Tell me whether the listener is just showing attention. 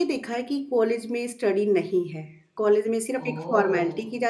Yes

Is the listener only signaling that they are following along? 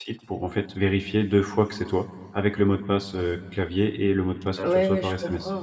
No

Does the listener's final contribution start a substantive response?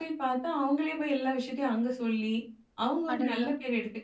No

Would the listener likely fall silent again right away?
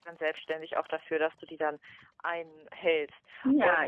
No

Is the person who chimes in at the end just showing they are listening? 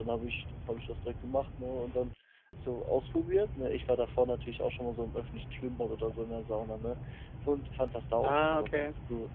Yes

